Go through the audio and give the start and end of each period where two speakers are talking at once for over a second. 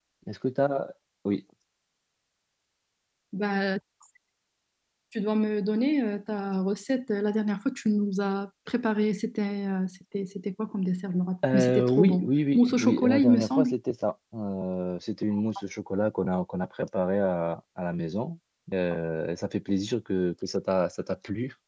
11.5-13.7

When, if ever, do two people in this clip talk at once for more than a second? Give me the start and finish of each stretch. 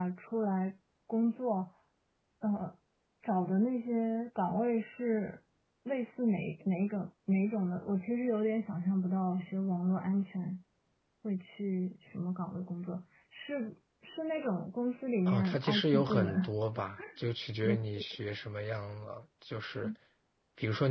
15.3-16.5

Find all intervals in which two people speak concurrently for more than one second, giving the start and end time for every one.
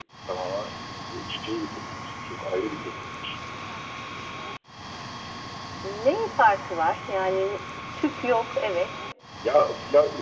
none

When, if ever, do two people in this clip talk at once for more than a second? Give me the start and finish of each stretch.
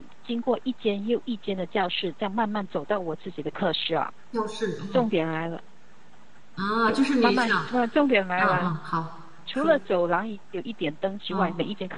none

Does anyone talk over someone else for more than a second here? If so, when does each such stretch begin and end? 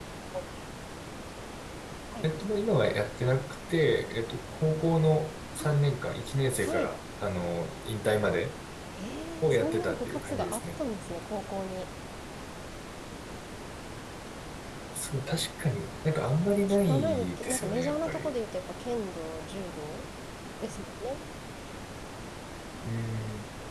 9.4-10.8, 16.7-18.3

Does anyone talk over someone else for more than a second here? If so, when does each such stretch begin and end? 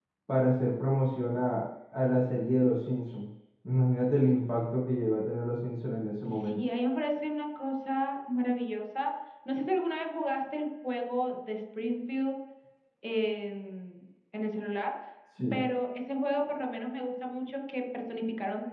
none

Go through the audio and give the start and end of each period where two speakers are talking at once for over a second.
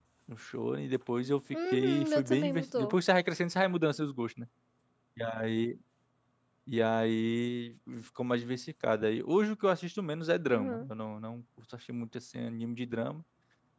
1.7-2.9

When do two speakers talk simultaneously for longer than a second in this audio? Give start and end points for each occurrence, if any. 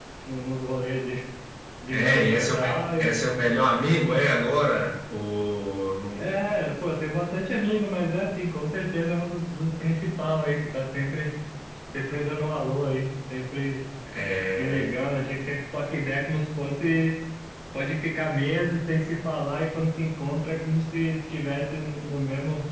1.9-3.5

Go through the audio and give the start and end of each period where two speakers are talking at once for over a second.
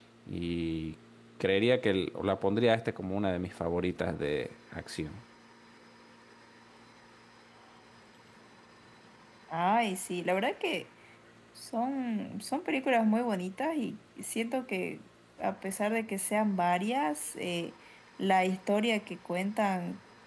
none

